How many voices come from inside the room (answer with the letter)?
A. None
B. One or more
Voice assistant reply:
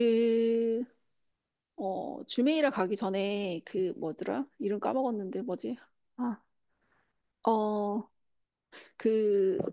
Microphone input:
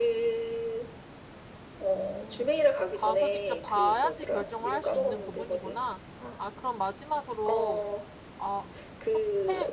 B